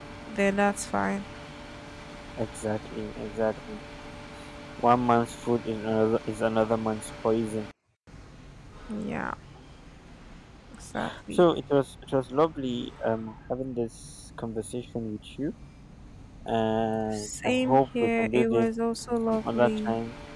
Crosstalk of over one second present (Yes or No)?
Yes